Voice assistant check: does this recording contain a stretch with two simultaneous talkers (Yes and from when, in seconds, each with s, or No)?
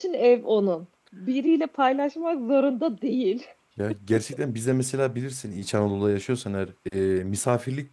No